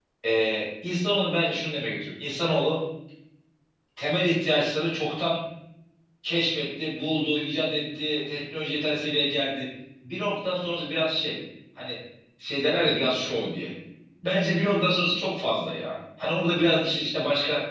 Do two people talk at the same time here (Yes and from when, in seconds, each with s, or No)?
No